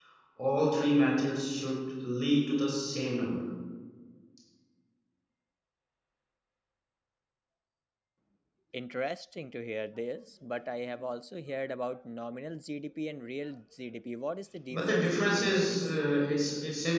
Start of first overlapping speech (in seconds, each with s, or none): 14.7 s